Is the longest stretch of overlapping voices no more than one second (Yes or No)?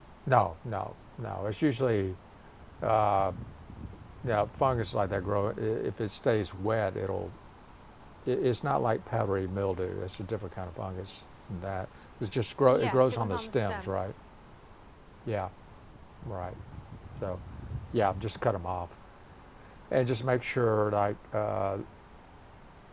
No